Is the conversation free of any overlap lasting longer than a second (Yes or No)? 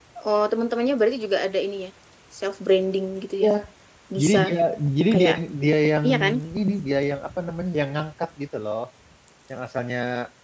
Yes